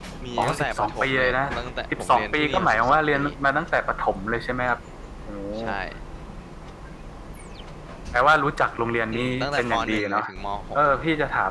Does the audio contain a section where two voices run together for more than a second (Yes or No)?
Yes